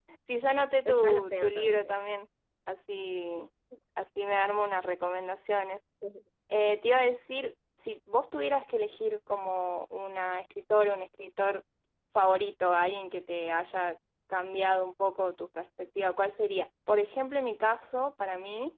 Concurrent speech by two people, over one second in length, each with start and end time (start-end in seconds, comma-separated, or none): 0.6-2.1